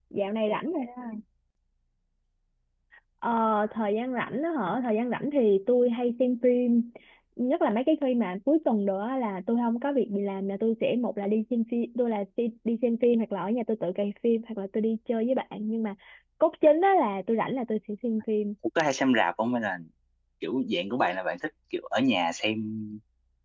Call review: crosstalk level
none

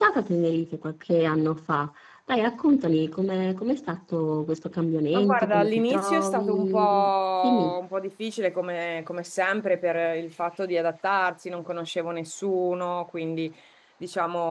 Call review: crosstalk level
present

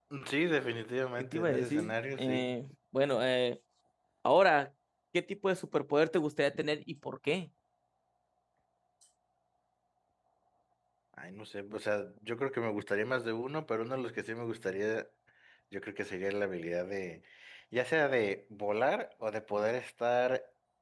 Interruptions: present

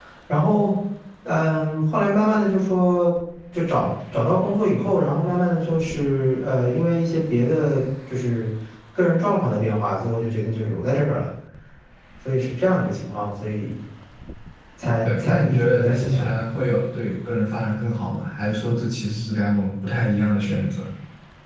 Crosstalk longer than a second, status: present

